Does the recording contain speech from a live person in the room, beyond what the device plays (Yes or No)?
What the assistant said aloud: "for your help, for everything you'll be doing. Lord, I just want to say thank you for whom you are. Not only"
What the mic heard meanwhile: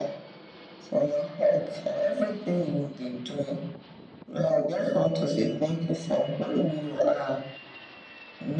No